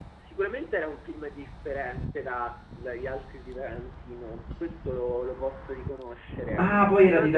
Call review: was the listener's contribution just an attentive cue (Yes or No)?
No